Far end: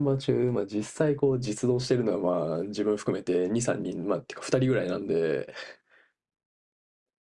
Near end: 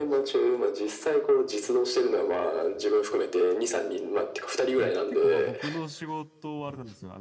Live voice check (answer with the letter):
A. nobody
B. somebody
B